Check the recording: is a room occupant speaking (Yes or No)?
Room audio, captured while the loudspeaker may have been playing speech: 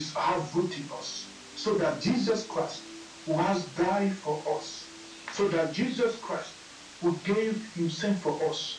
No